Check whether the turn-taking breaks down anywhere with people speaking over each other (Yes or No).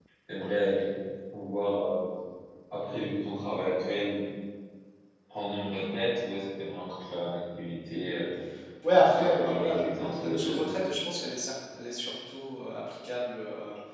Yes